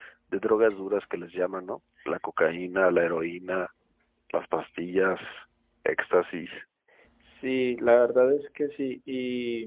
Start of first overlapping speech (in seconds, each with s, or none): none